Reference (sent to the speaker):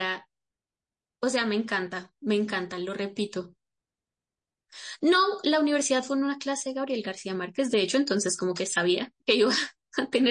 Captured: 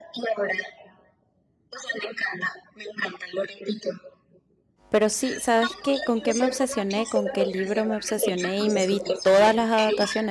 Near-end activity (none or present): present